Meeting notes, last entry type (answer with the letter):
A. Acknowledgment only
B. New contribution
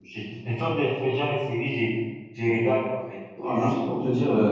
B